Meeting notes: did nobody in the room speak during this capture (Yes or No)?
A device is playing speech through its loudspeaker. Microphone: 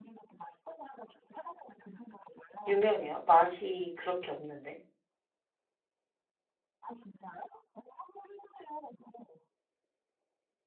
No